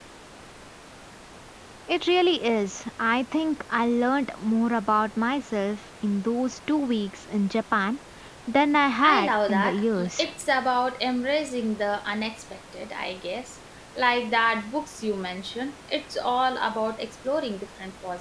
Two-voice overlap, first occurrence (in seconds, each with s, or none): 9.0 s